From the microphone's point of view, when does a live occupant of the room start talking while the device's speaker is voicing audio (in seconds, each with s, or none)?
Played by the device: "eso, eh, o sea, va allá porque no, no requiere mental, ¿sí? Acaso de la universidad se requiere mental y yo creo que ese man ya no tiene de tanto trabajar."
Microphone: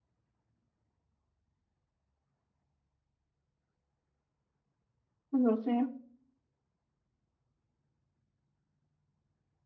5.3 s